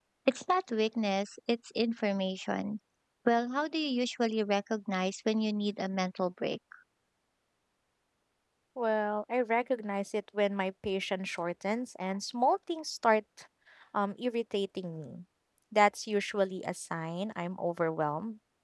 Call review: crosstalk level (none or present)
none